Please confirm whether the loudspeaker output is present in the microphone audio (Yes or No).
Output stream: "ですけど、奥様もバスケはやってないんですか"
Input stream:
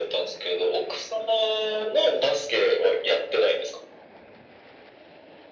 Yes